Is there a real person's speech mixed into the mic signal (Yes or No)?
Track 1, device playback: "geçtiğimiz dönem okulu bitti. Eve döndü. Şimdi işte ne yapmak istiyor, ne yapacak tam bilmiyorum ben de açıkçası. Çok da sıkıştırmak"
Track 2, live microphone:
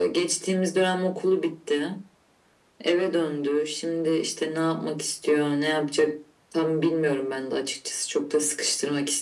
No